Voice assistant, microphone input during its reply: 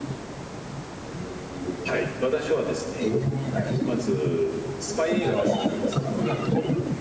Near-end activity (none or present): present